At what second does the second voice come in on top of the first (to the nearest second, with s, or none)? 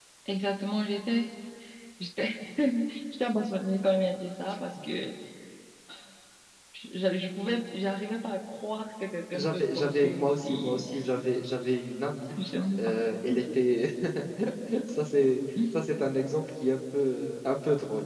9 s